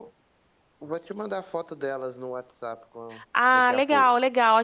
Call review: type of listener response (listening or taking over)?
taking over